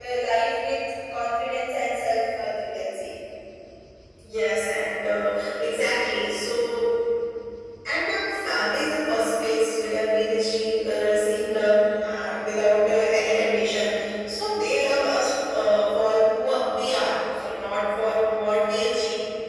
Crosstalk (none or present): none